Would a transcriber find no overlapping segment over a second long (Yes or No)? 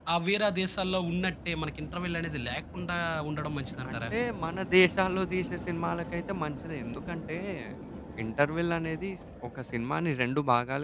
Yes